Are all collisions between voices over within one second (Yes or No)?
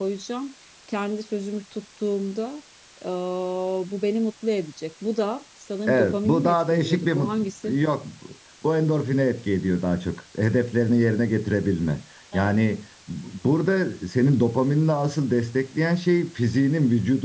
No